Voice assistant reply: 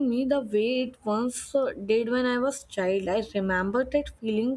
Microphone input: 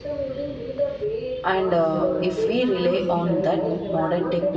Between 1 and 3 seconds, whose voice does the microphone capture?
both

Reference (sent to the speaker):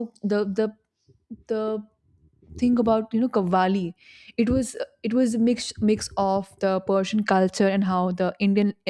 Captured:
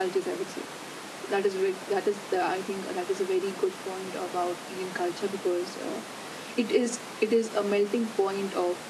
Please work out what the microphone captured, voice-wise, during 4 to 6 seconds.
user only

